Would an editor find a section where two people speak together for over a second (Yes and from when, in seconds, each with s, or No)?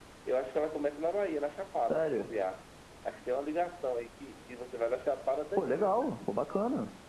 No